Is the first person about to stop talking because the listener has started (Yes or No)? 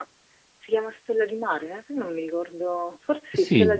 Yes